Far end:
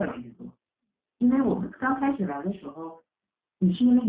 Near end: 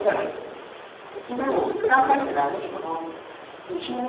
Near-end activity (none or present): present